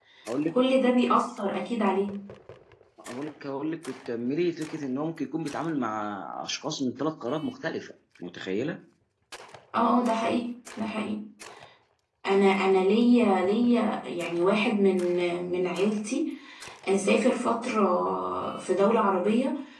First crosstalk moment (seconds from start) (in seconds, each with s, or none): none